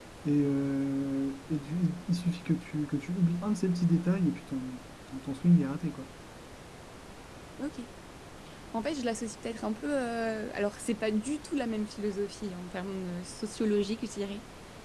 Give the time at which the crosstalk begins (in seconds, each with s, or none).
none